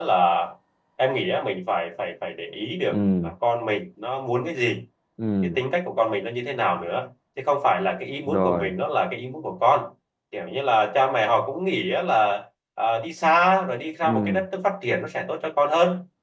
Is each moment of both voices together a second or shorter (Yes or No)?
Yes